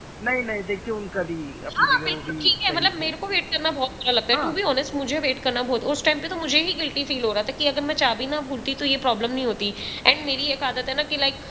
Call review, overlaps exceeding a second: present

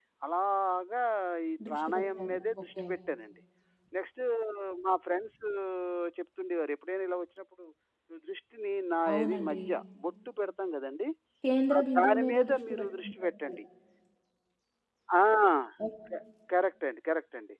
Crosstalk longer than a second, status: present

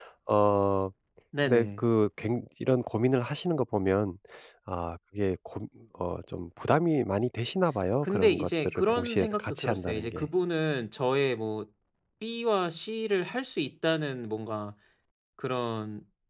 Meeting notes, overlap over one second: present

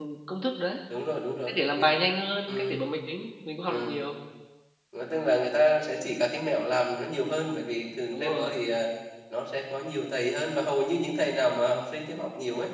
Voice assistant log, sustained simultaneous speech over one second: none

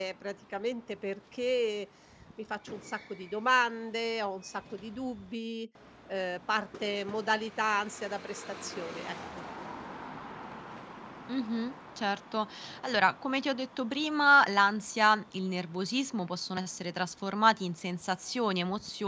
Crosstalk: none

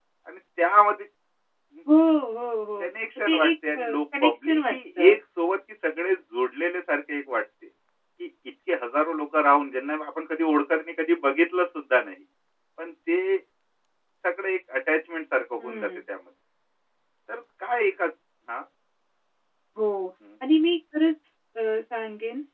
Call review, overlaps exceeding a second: present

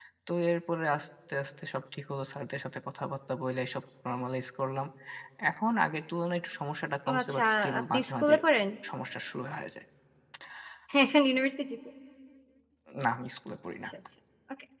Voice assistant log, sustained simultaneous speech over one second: present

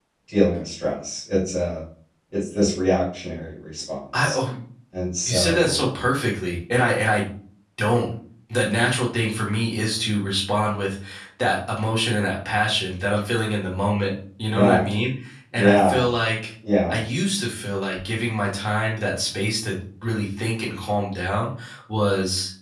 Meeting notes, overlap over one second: none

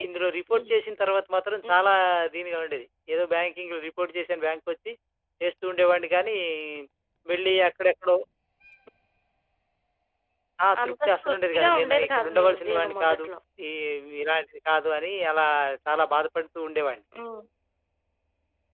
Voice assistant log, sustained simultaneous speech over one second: present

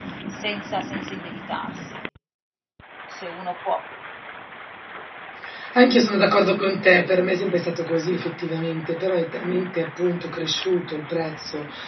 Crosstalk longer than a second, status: none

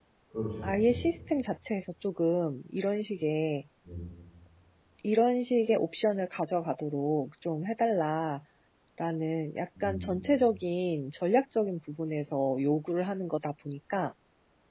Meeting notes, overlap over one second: none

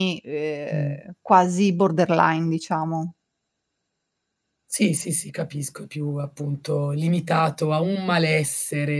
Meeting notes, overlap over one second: none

